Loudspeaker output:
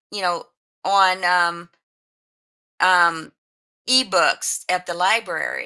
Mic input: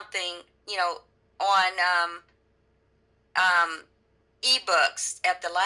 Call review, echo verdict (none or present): present